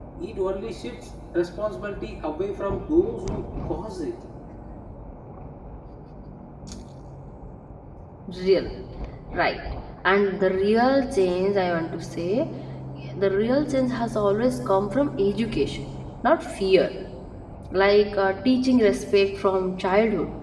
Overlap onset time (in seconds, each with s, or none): none